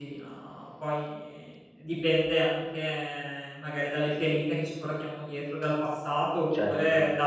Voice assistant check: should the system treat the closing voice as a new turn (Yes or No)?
No